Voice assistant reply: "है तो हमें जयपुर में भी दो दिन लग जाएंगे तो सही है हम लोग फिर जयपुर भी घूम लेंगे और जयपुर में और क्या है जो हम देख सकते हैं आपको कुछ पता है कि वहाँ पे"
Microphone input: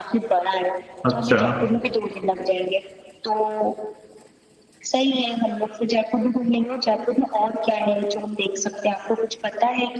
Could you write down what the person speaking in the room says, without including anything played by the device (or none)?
अच्छा